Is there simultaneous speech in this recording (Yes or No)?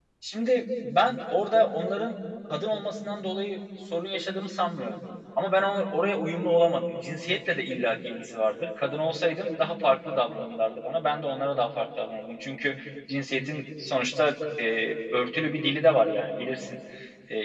No